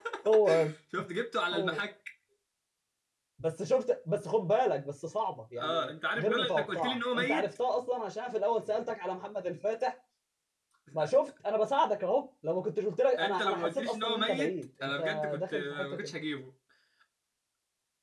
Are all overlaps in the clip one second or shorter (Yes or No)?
No